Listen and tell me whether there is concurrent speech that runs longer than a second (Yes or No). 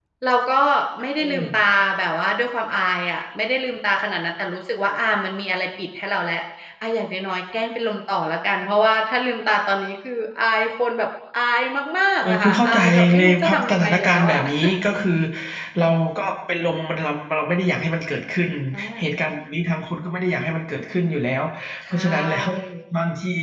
Yes